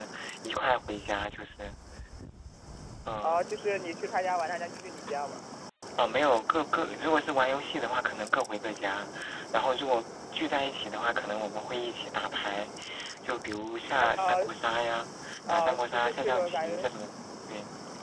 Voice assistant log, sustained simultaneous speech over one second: present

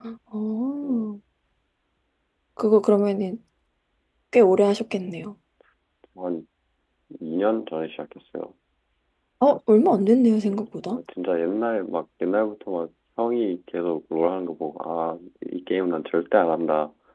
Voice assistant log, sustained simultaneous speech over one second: none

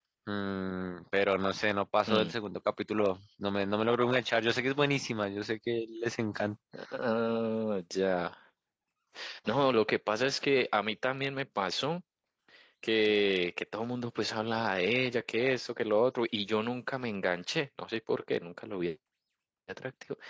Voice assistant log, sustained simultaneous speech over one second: none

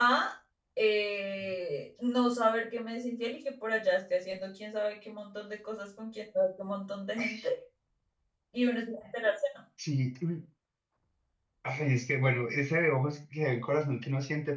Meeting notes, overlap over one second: none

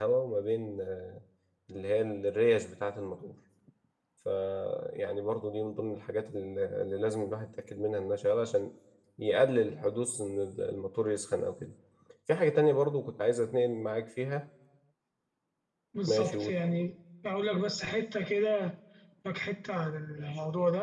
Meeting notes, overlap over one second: none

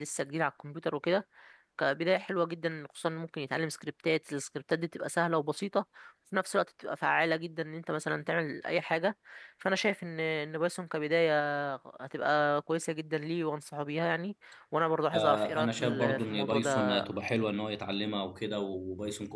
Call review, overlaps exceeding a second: present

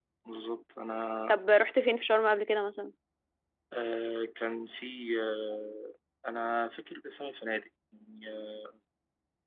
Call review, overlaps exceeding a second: none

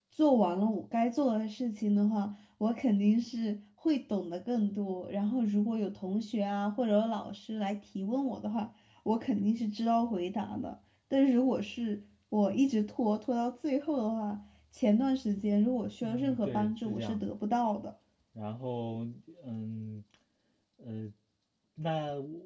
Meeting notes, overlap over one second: present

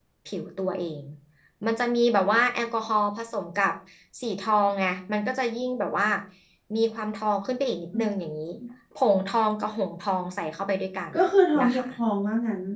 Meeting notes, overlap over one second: none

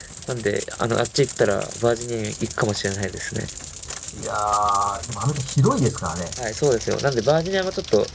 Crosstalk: none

